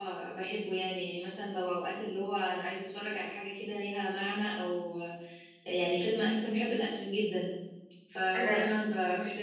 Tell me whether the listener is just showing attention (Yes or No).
Yes